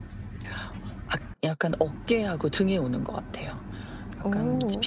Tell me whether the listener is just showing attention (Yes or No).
Yes